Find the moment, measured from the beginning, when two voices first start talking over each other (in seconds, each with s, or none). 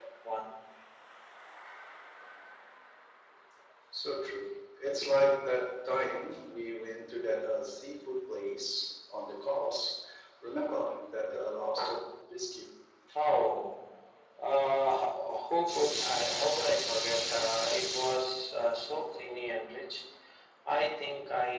none